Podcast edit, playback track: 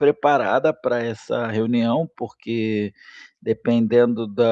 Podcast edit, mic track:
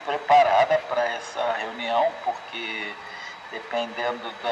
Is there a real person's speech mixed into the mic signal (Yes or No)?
No